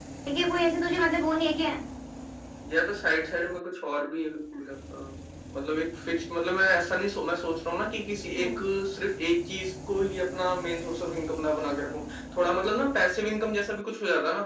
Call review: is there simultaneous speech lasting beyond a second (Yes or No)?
No